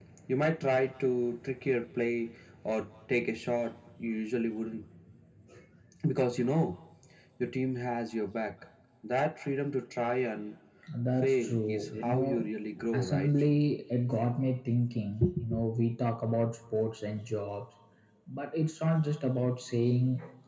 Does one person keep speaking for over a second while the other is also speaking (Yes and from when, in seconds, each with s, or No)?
Yes, from 11.2 s